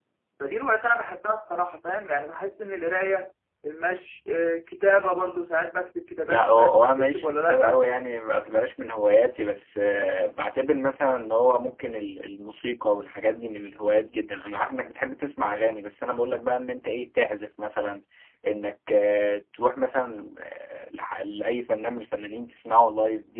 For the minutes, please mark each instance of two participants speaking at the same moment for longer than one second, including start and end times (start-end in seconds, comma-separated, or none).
6.3-7.8